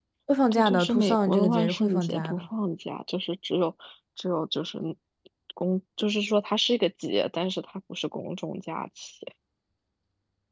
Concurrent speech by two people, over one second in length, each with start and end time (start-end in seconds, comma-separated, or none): 0.5-2.4